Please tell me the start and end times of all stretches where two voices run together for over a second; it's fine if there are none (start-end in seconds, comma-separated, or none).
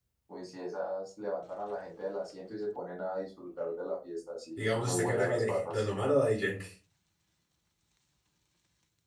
4.6-5.8